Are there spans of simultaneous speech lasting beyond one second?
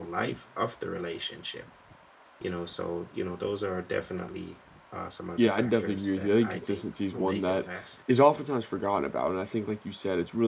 Yes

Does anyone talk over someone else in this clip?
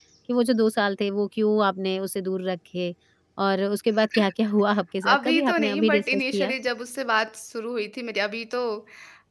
Yes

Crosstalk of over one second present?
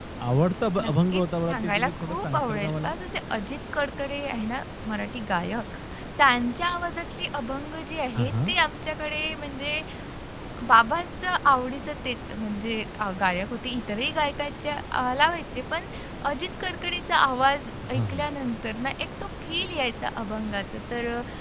Yes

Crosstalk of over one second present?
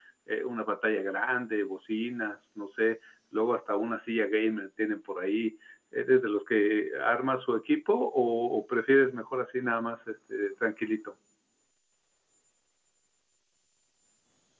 No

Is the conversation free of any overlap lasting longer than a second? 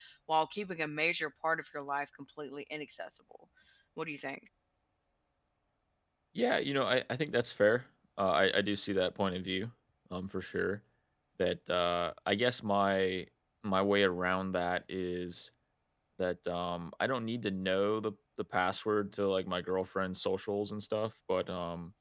Yes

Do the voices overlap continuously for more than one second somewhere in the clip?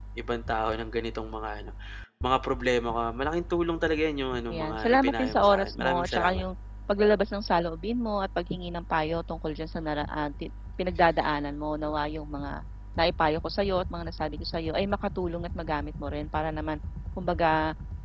Yes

